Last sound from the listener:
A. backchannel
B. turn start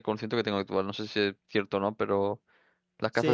B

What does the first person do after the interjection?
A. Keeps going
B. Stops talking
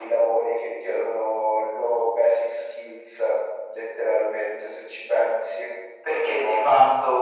B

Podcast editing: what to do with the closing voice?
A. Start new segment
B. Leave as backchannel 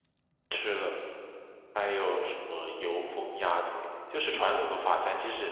B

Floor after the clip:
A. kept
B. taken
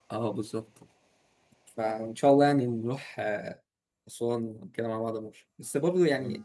A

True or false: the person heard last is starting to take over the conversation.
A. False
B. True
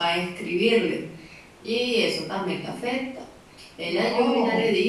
A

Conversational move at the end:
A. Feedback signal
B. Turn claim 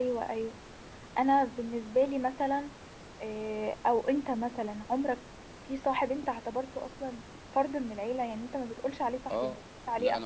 B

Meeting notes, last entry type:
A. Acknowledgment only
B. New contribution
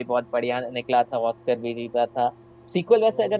A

